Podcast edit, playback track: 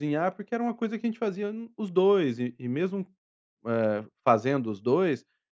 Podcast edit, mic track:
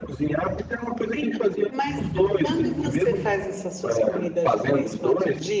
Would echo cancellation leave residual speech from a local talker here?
Yes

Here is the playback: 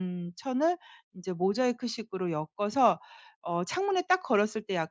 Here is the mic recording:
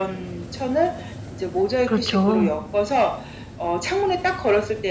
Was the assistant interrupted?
Yes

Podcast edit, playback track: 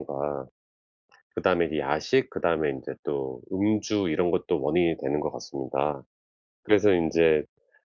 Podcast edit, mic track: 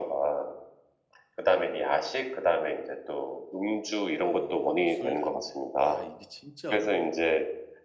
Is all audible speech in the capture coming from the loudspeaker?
No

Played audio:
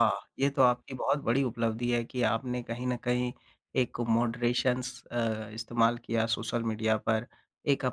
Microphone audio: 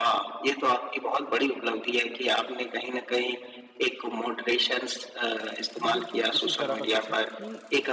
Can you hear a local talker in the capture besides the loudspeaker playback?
Yes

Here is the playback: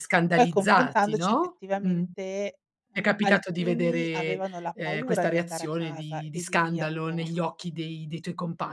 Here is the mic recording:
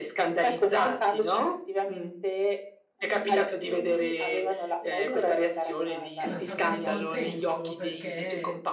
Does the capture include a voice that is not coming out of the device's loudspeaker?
Yes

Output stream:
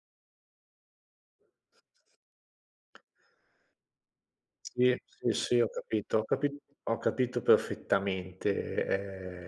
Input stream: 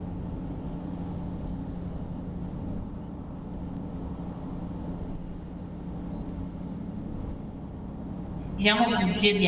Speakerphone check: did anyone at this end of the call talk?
Yes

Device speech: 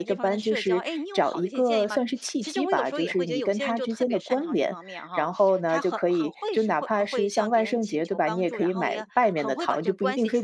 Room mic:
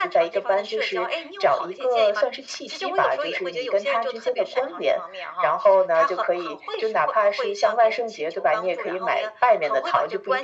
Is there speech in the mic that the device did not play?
No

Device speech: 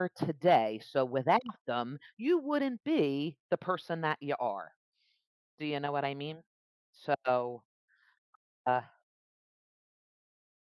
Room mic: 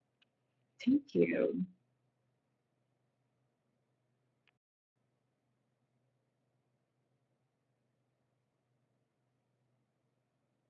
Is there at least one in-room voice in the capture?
Yes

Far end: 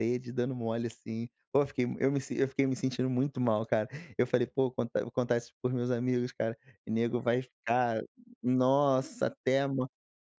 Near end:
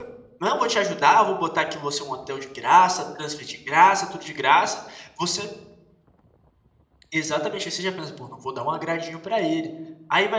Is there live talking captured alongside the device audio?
Yes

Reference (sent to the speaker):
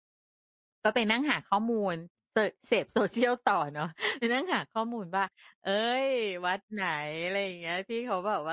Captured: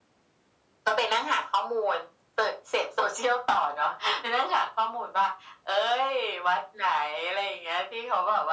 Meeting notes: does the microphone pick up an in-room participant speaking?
No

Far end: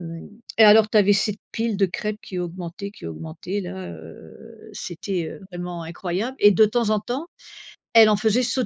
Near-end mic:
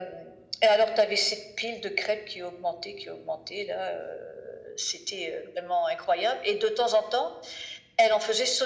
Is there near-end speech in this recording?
No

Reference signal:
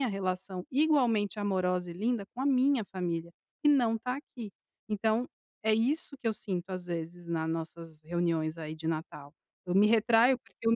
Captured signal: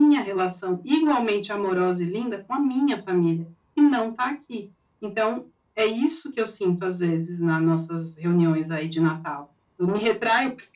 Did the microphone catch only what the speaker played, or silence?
Yes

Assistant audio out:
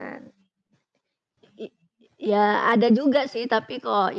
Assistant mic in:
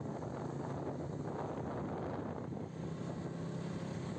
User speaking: No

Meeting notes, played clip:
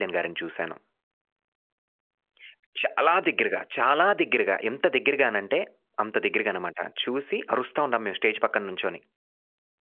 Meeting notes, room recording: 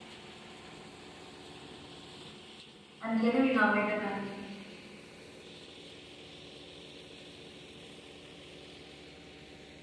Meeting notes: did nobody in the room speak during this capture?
No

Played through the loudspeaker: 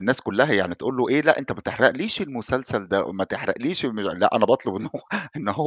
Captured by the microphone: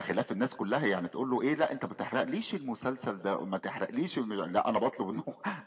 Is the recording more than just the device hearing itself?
No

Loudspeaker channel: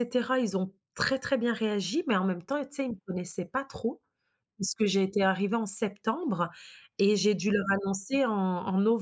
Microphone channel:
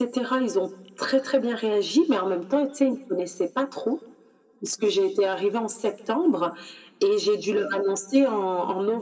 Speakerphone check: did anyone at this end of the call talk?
No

